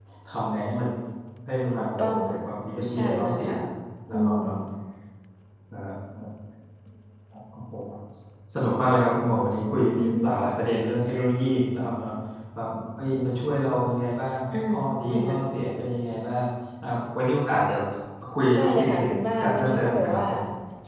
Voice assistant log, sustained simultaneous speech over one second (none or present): present